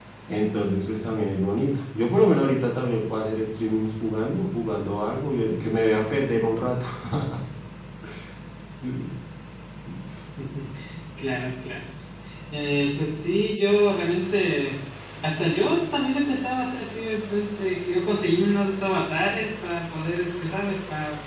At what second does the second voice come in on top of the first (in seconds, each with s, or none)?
none